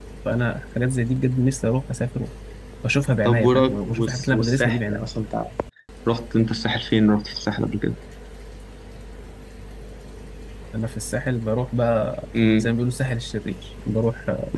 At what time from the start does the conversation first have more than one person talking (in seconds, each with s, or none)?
3.2 s